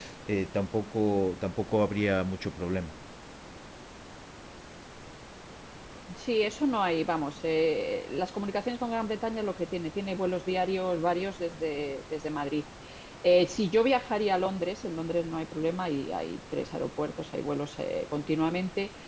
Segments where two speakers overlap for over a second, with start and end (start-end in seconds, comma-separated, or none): none